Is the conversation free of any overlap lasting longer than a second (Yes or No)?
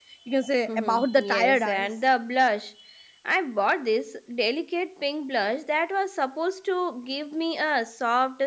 No